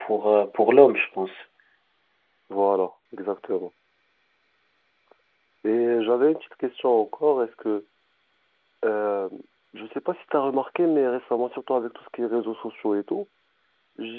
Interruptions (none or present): none